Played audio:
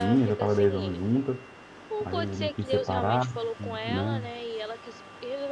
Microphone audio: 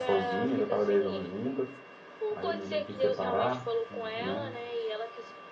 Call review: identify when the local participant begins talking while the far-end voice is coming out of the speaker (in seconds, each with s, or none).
none